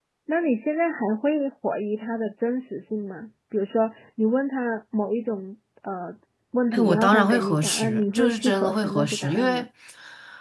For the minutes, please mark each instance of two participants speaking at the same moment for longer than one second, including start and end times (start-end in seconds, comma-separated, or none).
6.7-9.6